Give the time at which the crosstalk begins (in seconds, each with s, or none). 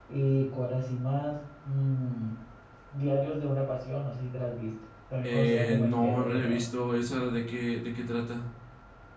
5.2 s